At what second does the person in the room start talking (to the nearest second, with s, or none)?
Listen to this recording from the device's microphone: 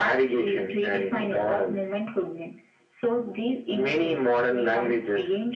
none